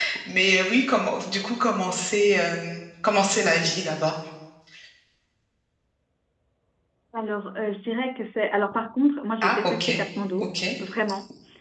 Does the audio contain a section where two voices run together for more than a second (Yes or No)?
No